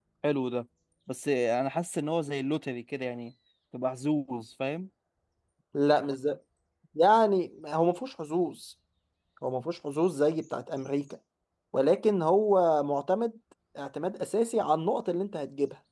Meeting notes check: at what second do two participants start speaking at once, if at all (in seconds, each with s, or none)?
none